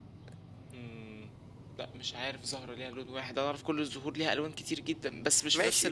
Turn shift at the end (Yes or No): Yes